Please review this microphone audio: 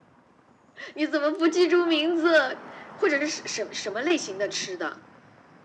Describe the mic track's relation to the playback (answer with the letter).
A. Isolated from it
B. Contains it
B